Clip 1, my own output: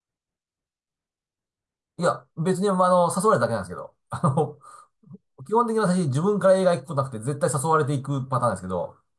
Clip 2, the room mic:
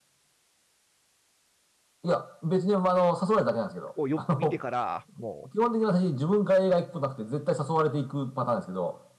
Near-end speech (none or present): present